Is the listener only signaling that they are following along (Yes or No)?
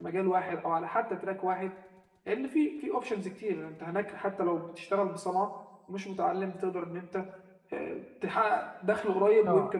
No